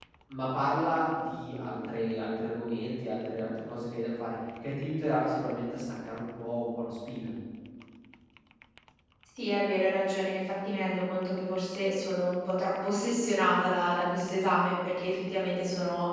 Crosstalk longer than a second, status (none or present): none